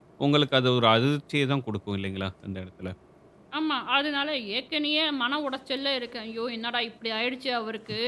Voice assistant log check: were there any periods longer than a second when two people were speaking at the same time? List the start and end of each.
none

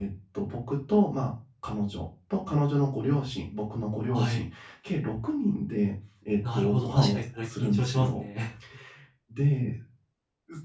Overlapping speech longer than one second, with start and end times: 6.5-8.2

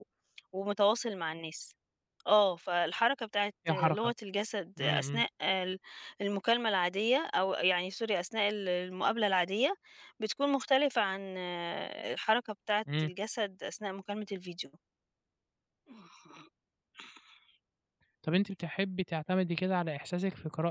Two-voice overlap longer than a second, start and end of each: none

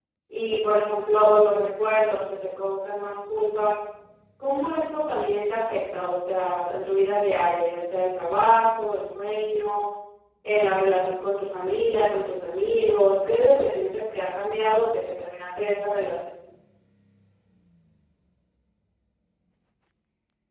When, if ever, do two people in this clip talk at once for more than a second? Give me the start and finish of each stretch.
none

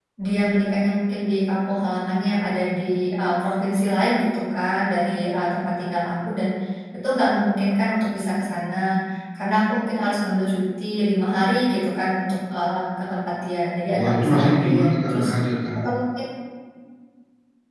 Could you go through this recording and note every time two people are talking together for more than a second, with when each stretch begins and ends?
14.0-15.2

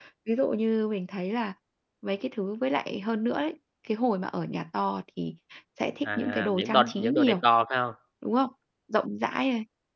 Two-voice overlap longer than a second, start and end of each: 6.0-7.3

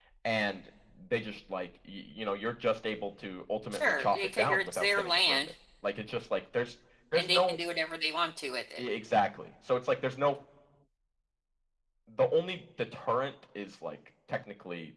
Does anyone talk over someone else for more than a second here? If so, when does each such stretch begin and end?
3.7-5.5

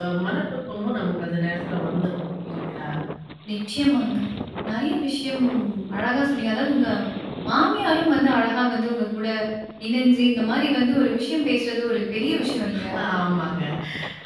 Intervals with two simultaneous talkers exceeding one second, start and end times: none

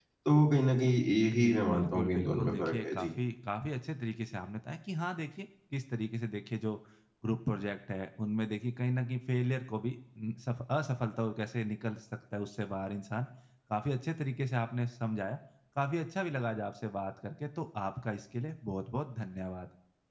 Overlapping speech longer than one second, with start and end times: 1.4-3.1

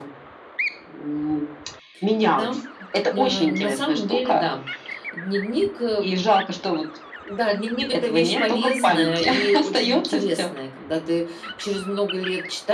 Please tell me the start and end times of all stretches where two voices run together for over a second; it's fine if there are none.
3.2-4.4, 7.9-10.5

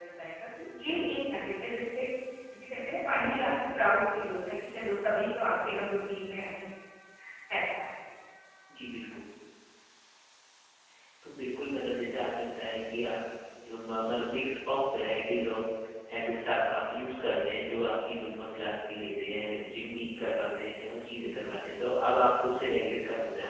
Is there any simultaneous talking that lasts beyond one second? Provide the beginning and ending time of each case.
none

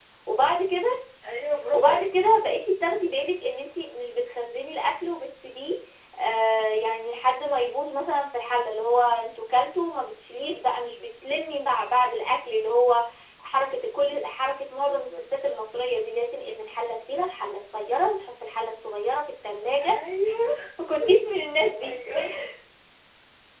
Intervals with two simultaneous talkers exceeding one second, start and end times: none

